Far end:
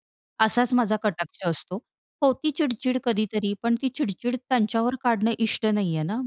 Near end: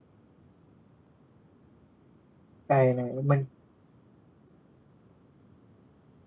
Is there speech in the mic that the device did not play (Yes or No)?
Yes